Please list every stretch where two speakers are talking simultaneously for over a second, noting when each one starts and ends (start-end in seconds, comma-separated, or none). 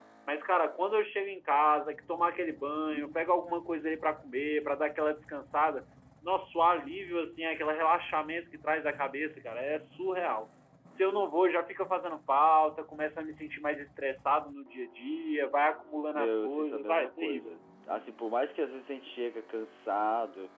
16.2-17.5